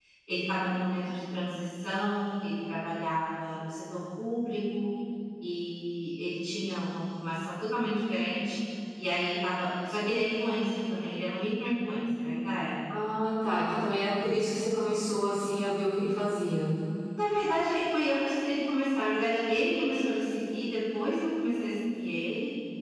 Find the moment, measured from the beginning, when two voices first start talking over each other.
none

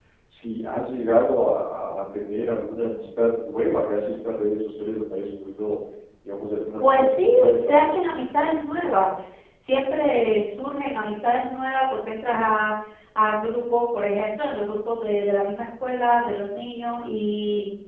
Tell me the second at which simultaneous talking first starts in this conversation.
6.8 s

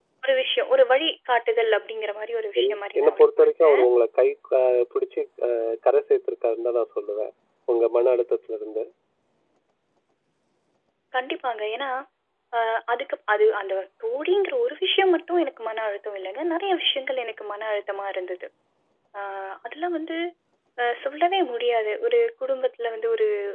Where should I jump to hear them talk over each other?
2.6 s

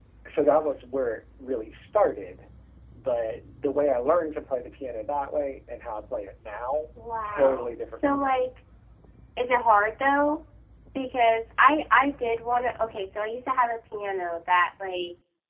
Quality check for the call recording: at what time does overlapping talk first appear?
7.2 s

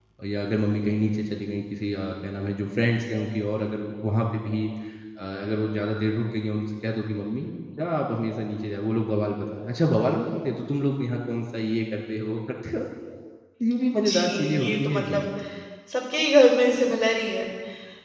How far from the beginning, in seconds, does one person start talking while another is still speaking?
13.9 s

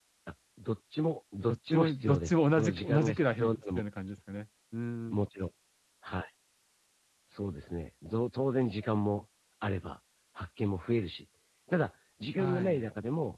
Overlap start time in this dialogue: 1.7 s

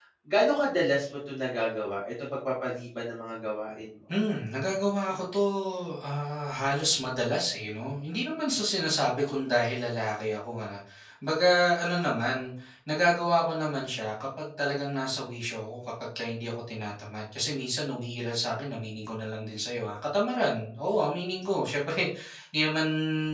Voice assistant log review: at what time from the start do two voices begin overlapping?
none

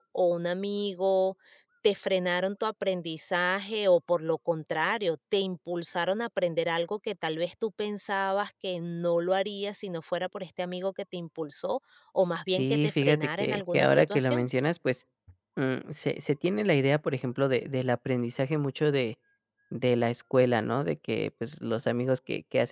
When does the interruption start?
12.5 s

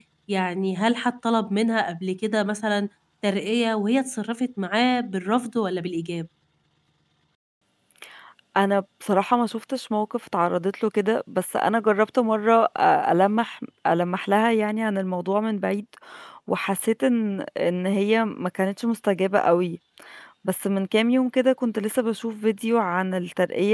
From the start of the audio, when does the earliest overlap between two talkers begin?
none

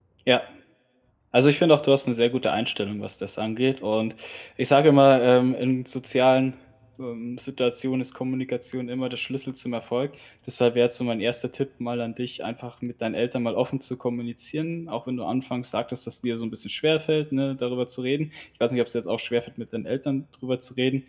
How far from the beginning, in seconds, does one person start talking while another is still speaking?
none

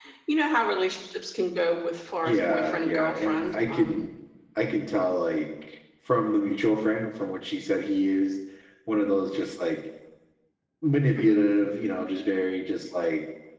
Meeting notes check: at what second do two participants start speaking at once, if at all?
2.2 s

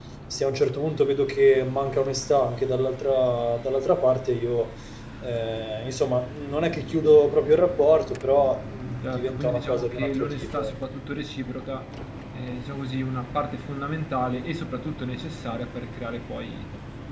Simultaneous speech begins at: 9.0 s

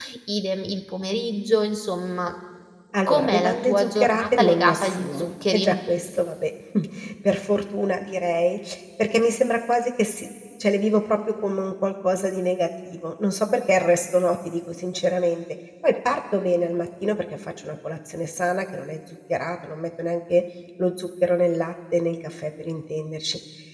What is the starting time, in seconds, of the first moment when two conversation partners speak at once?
3.1 s

